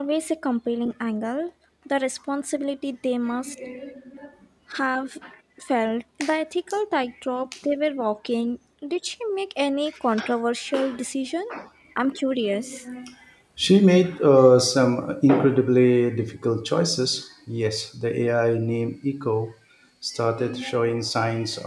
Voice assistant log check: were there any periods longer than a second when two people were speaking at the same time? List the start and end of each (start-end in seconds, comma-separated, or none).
none